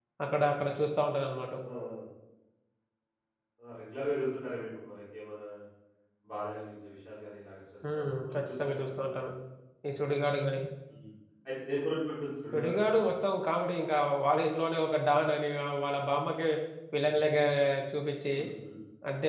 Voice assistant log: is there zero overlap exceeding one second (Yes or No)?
No